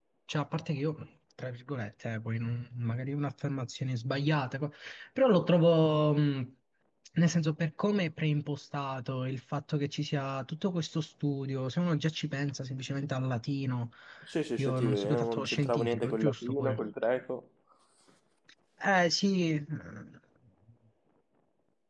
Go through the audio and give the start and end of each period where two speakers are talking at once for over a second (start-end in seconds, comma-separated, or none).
14.6-16.8